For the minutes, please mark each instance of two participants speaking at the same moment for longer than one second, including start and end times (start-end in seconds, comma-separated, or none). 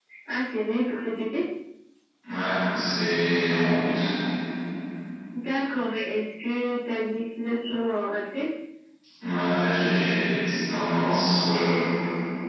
none